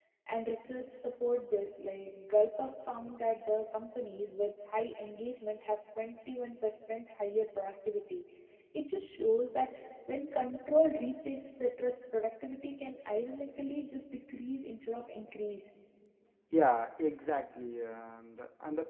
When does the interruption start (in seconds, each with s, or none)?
none